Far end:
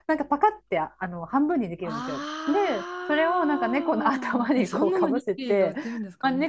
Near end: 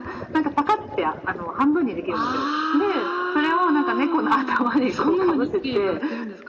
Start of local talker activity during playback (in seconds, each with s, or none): none